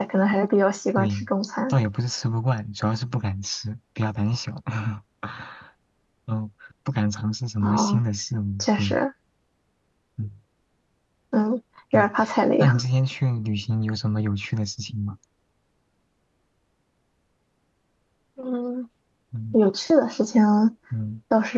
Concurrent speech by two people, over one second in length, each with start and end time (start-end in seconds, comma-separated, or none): none